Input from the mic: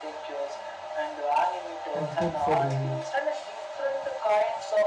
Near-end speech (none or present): present